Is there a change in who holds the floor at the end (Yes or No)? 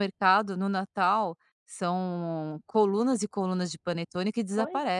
Yes